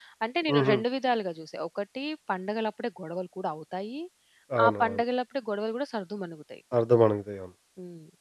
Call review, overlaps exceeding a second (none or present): none